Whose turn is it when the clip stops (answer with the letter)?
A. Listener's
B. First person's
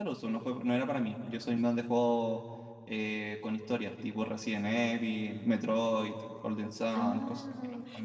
A